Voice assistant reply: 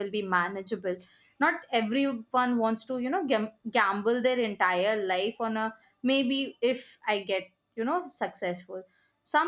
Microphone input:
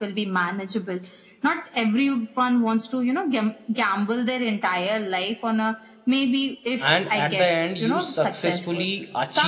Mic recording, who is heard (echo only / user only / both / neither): both